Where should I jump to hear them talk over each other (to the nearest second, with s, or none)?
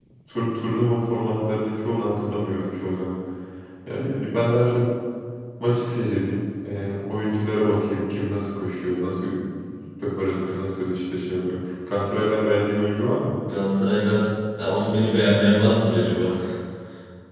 none